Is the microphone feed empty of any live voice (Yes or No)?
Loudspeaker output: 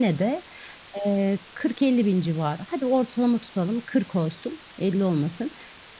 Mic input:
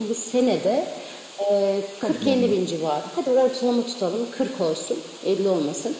No